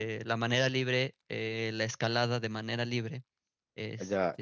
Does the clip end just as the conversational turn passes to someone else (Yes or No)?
Yes